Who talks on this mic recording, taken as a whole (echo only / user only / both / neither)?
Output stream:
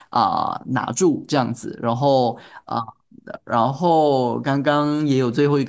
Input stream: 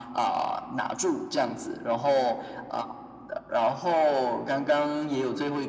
echo only